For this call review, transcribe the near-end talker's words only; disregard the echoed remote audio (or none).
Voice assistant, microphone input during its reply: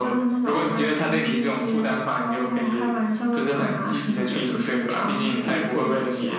none